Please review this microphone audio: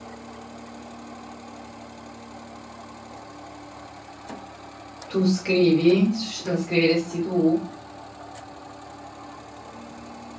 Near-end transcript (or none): Tu scrivi? Sci- La scriveresti tu?